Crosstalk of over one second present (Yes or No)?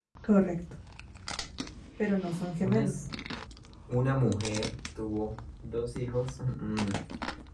No